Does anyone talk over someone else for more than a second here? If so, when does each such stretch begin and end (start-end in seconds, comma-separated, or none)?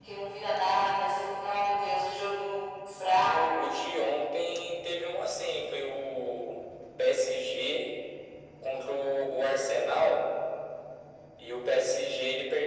none